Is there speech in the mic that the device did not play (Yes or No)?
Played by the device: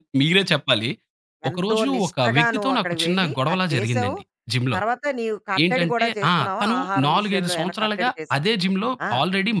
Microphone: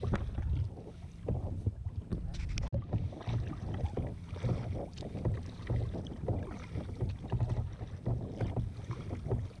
No